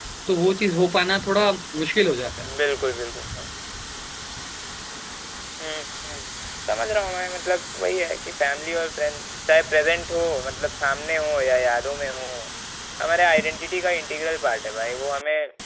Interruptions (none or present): none